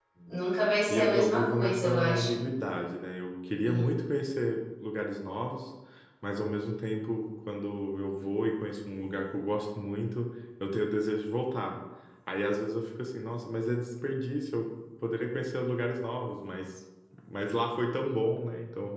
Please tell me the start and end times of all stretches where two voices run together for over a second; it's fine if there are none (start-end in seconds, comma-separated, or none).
0.9-2.4